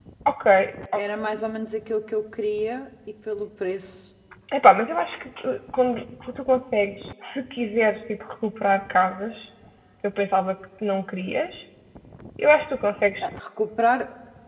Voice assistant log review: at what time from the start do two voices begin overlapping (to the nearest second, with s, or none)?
none